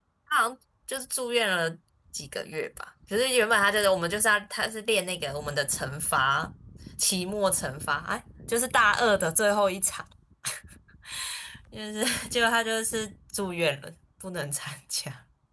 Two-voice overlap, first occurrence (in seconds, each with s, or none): none